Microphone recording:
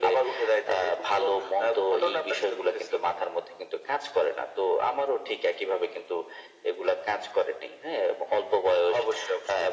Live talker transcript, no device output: none

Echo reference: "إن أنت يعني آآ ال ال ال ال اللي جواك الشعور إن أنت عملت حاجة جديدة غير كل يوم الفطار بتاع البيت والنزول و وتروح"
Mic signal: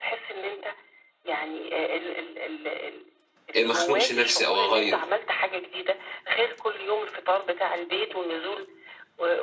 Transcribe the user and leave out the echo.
آآ ما اخنقش نفسي أو أغيّر.

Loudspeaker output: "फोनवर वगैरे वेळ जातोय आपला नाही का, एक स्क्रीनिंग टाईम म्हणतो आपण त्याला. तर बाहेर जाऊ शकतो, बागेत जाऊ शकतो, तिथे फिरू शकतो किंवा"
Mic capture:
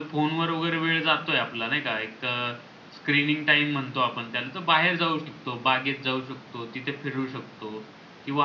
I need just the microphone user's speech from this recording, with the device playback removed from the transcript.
none

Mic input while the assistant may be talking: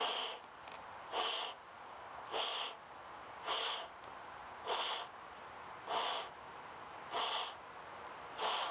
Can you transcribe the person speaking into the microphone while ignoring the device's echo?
none

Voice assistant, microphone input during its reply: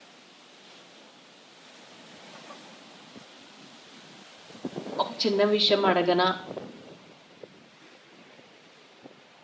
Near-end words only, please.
ఒక చిన్న విషయం అడగనా?

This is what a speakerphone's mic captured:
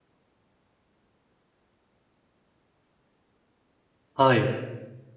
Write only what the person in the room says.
はい。

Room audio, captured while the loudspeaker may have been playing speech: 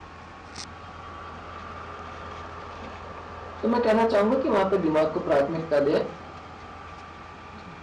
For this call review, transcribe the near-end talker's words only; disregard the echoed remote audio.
तो मैं कहना चाहूँगा कि वहाँ पे दिमाग को प्राथमिकता दें

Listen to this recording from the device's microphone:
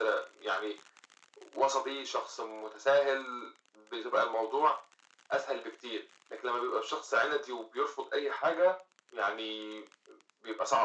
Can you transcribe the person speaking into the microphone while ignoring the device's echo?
none

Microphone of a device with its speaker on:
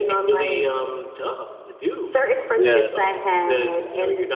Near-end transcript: yeah

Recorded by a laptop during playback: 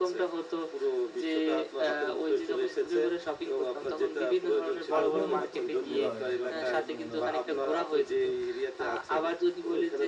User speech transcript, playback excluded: আগ্রহ বোধ করছেন বোধহয় আপনার কথা শুনে মনে হচ্ছে।

